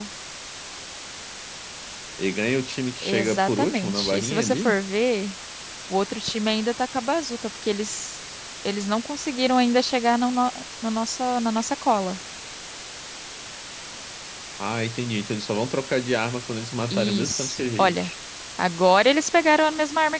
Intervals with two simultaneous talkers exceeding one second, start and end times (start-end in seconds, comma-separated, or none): 3.0-4.8, 16.9-18.1